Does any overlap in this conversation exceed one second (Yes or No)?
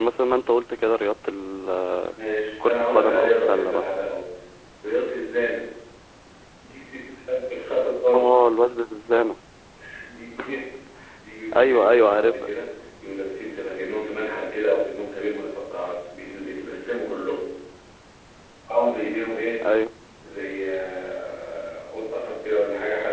Yes